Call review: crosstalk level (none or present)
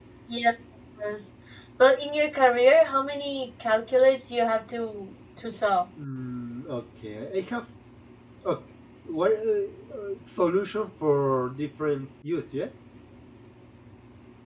none